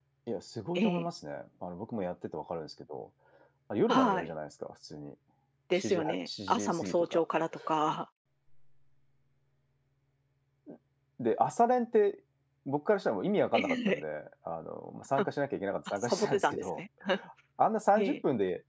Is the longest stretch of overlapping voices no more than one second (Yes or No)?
No